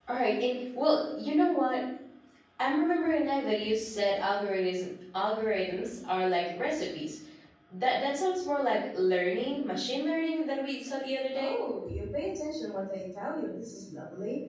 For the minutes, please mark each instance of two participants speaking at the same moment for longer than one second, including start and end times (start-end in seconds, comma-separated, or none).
none